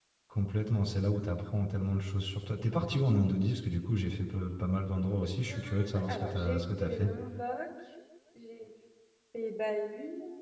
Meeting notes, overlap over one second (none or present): present